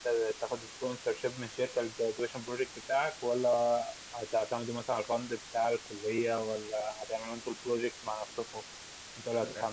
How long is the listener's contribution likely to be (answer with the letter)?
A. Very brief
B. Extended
A